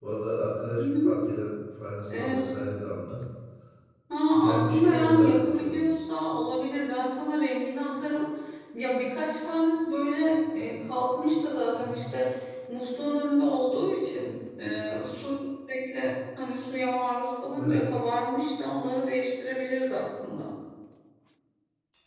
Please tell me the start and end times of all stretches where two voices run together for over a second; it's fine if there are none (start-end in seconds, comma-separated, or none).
4.4-5.8